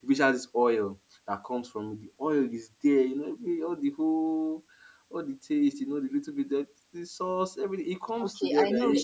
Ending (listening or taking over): taking over